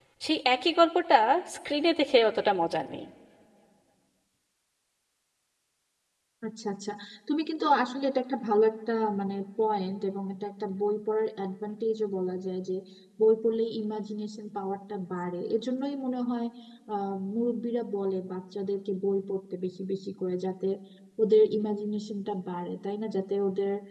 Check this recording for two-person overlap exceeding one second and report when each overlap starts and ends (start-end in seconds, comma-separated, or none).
none